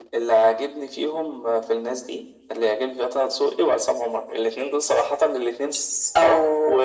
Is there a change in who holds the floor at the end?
Yes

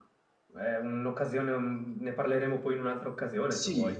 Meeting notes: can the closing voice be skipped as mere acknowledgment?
No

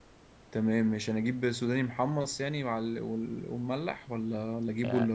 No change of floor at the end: No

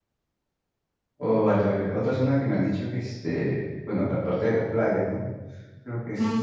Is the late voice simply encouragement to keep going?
No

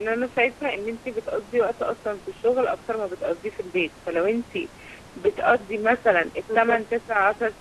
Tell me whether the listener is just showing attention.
Yes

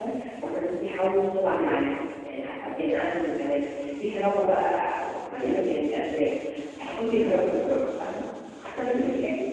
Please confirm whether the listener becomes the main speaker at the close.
Yes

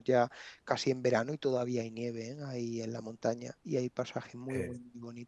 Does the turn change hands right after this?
No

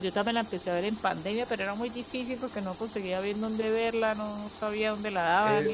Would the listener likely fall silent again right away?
No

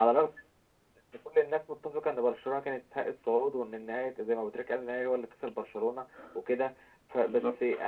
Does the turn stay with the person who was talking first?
Yes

